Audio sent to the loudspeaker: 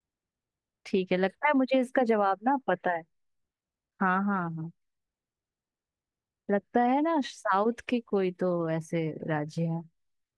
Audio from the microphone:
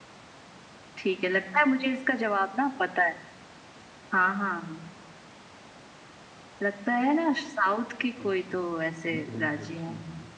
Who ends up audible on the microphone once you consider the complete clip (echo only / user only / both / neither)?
both